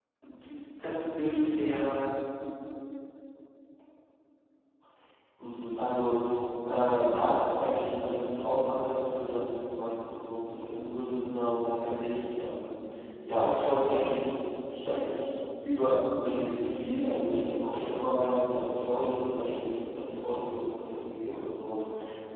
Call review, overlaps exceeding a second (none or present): none